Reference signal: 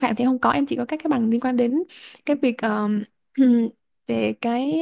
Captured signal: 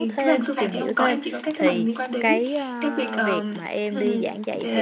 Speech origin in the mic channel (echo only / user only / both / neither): both